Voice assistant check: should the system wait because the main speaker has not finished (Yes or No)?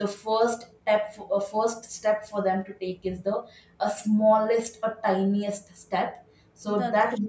Yes